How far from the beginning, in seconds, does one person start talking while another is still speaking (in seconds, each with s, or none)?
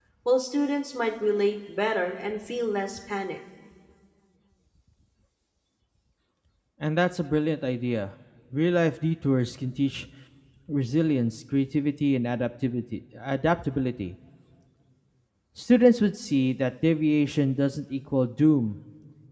none